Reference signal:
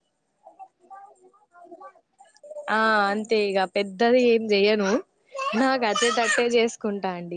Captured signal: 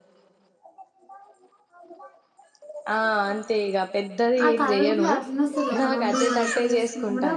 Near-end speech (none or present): present